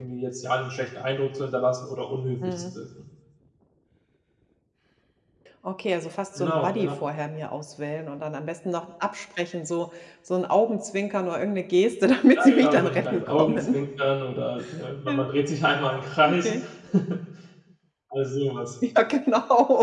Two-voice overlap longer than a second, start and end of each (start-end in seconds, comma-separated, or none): 12.3-13.8